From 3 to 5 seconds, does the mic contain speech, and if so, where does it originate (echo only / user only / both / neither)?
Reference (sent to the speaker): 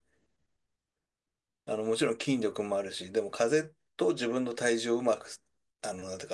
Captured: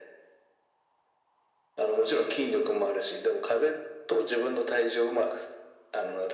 echo only